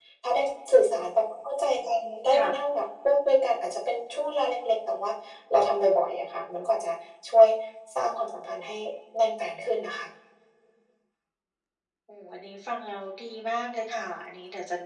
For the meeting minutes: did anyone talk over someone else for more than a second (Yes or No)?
No